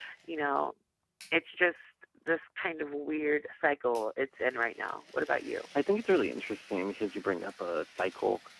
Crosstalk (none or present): none